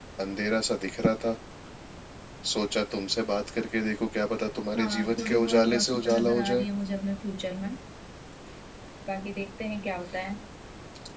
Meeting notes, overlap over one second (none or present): present